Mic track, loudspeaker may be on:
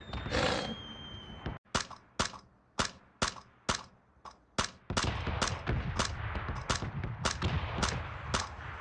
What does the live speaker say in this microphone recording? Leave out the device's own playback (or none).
none